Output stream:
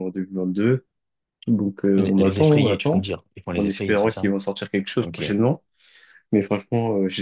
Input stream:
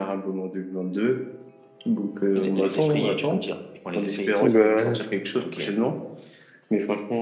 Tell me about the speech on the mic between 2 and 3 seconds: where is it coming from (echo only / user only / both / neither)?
echo only